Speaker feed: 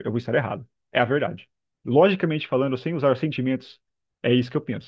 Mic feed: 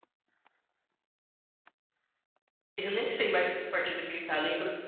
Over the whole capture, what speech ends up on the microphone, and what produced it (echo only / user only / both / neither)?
user only